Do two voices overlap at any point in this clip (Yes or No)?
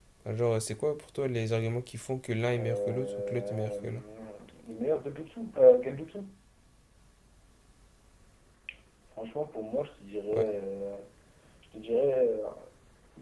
Yes